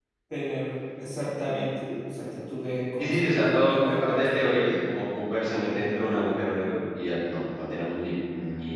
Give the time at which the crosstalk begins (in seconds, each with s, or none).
3.0 s